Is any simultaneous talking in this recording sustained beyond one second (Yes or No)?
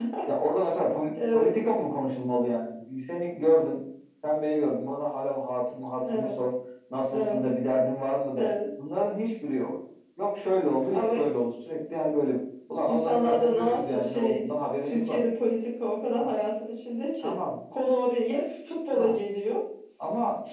Yes